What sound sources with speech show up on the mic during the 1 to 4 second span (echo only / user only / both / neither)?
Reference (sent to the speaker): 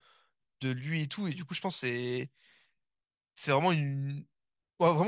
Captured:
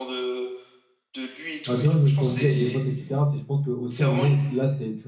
both